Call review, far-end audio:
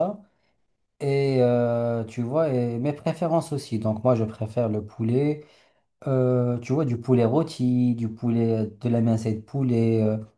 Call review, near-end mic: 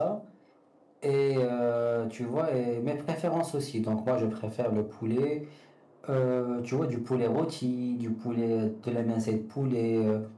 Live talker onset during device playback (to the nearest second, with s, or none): none